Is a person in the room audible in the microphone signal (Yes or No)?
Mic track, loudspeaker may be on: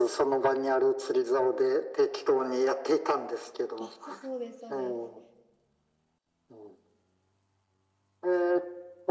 Yes